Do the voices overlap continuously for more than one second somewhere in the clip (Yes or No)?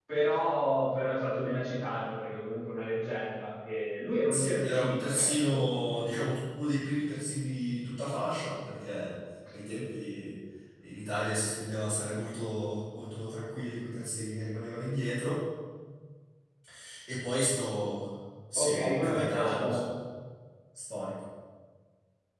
Yes